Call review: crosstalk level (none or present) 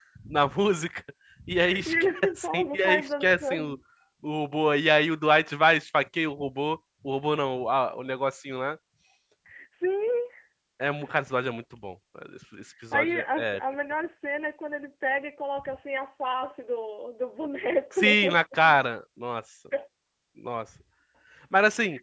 present